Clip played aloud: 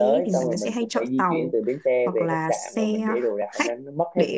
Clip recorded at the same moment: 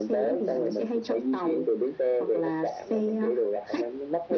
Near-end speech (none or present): none